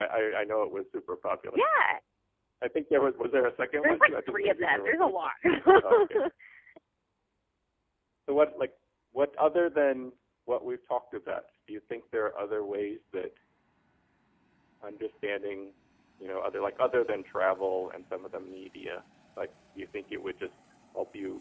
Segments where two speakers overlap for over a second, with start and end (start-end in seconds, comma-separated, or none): 3.8-5.3